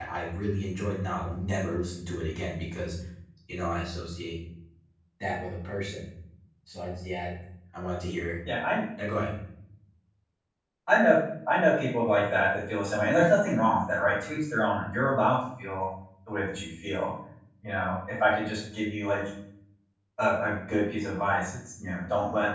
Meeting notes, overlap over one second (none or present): none